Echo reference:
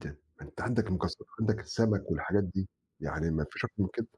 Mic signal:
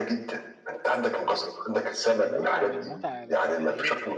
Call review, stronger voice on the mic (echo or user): echo